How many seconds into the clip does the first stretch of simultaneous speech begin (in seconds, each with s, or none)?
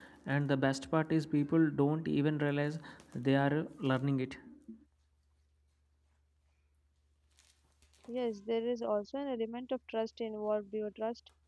none